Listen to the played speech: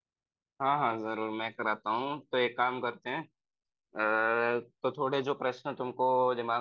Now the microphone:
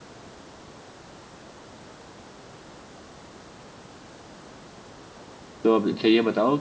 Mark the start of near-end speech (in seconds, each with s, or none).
5.6 s